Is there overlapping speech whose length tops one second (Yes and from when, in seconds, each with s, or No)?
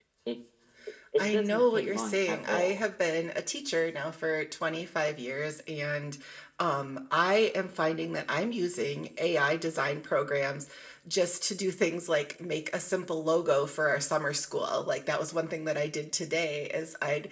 Yes, from 1.2 s